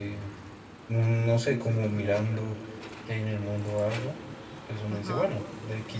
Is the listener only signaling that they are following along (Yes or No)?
Yes